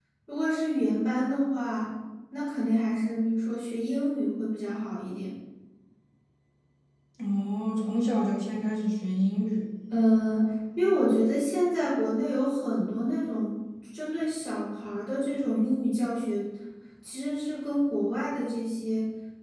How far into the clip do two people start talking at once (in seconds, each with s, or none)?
none